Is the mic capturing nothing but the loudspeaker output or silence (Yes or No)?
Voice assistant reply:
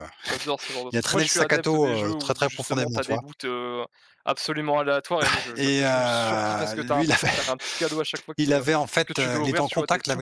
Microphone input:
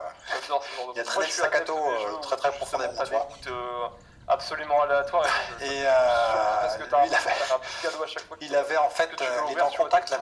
Yes